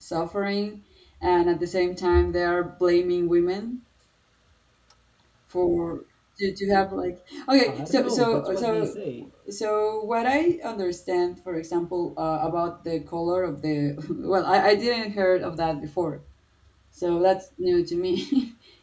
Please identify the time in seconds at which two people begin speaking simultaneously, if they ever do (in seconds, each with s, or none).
7.6 s